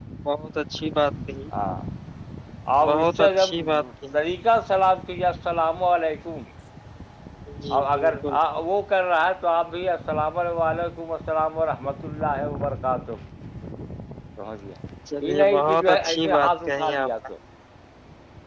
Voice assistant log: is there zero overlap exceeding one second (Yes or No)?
No